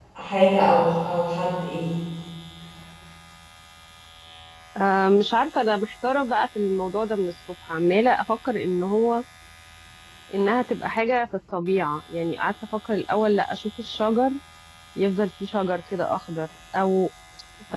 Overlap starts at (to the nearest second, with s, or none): none